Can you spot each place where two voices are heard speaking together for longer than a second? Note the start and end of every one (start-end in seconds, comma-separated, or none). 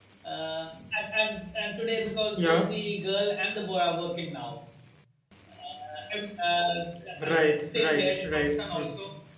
7.3-8.9